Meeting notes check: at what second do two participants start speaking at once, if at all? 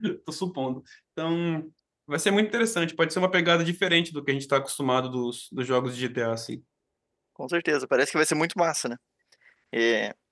none

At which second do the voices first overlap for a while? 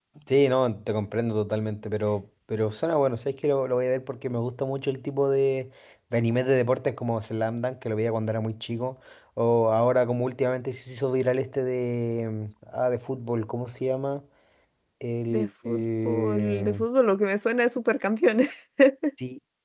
15.3 s

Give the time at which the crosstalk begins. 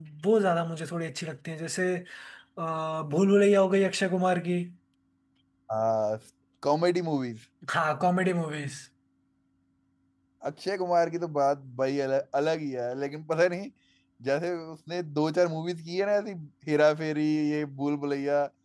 none

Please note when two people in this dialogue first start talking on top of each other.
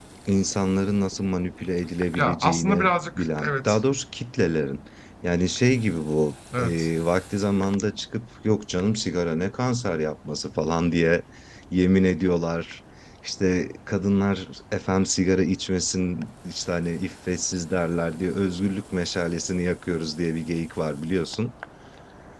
2.2 s

